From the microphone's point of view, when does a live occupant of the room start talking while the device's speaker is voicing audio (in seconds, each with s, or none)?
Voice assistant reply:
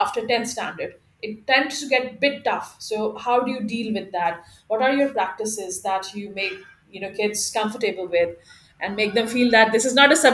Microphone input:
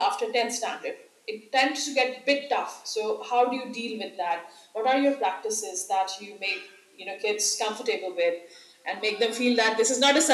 none